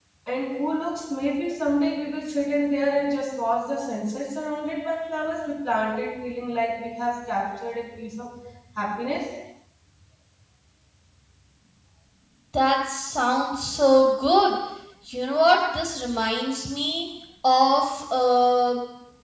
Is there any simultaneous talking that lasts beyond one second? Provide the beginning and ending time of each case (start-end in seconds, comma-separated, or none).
none